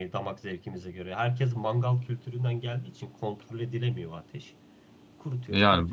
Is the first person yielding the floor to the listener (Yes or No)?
Yes